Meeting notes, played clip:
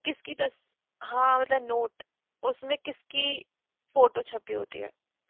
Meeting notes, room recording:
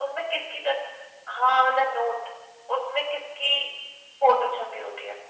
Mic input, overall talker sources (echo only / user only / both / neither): echo only